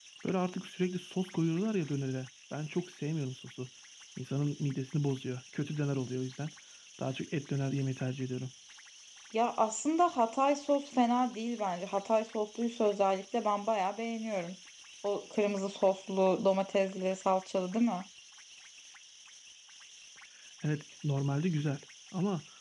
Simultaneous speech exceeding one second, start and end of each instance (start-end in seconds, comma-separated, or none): none